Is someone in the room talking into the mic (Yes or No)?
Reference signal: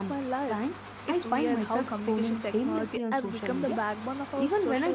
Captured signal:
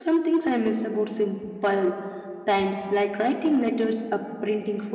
Yes